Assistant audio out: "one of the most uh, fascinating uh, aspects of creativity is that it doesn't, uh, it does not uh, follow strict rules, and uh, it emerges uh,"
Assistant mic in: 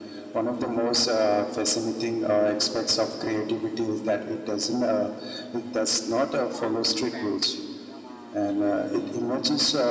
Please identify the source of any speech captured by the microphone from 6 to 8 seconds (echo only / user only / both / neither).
both